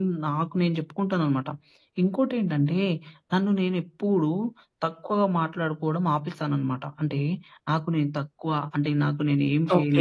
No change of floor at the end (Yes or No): No